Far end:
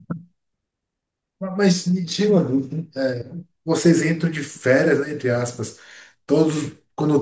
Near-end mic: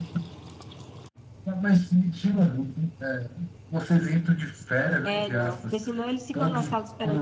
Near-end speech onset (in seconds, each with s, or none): 5.0 s